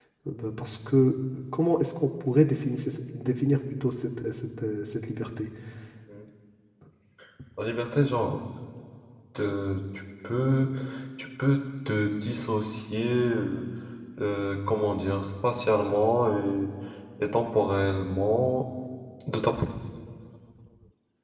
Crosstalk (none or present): none